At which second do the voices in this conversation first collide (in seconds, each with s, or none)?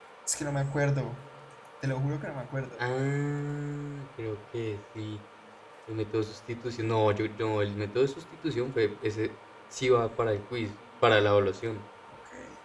none